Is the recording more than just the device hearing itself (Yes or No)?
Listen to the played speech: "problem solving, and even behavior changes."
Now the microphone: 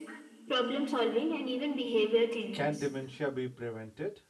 Yes